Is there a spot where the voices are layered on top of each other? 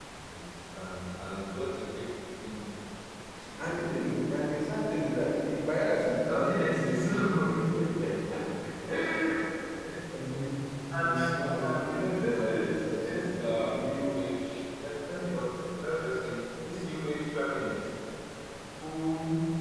Yes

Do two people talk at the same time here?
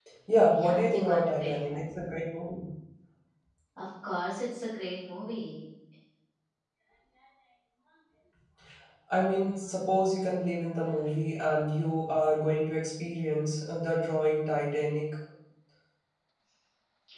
Yes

